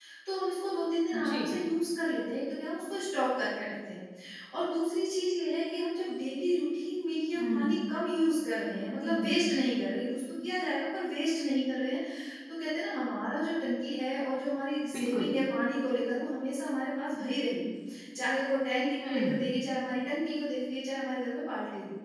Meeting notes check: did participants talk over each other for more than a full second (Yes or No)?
No